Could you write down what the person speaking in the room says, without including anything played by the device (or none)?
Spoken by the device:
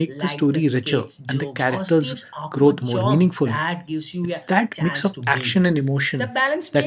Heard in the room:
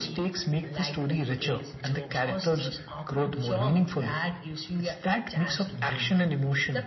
none